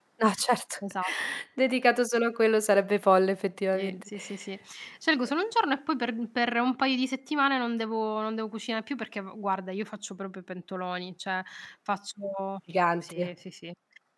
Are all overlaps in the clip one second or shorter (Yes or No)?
Yes